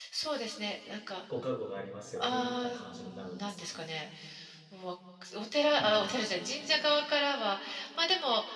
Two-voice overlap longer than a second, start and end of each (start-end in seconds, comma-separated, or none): 2.2-3.8